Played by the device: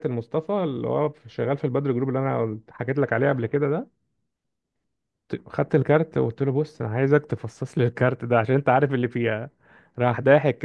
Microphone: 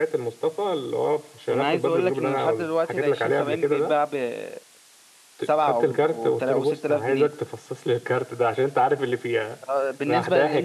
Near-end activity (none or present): present